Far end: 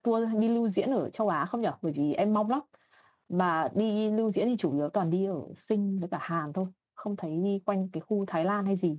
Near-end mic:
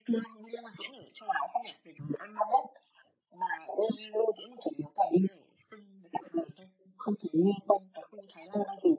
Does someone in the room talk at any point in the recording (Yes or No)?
No